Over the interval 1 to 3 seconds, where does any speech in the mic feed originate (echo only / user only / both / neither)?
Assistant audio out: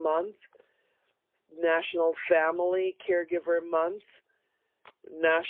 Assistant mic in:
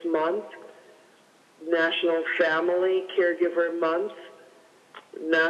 echo only